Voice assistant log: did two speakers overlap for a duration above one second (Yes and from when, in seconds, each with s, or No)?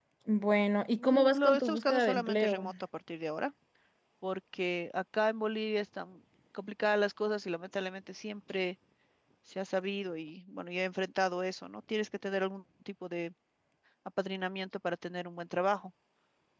Yes, from 1.0 s